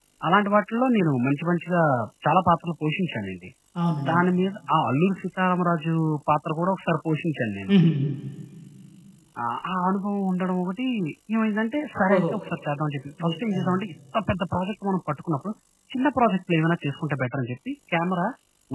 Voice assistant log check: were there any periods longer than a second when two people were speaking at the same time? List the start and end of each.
none

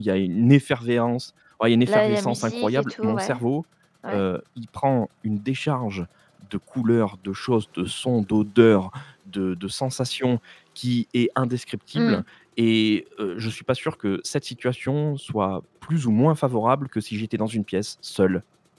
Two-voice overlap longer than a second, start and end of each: 1.8-3.4

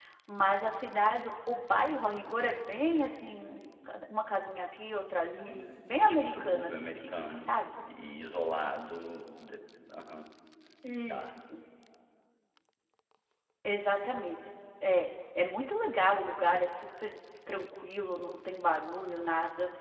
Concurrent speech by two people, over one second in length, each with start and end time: 5.5-7.5

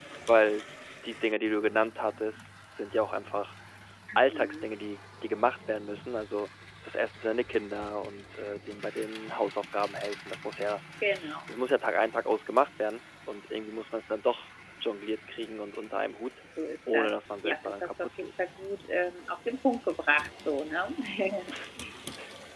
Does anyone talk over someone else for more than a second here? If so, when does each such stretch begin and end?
16.9-18.3

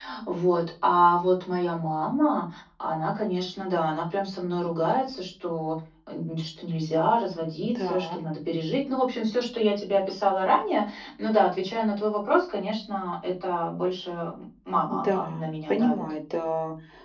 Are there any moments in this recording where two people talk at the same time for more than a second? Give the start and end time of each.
14.9-16.1

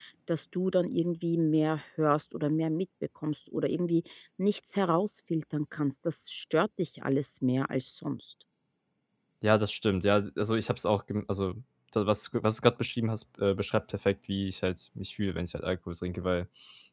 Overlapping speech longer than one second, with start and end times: none

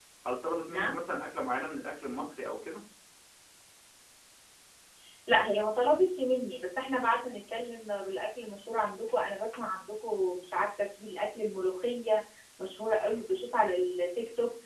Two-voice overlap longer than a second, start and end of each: none

